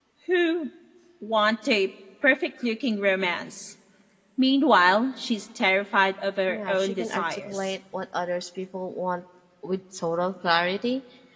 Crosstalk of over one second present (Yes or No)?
Yes